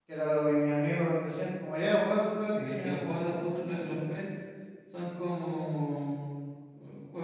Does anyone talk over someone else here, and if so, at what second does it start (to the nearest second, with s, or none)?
2 s